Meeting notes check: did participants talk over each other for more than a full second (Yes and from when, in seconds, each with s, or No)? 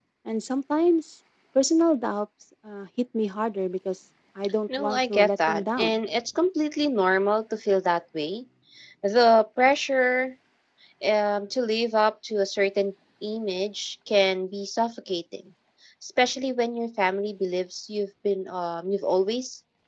Yes, from 4.7 s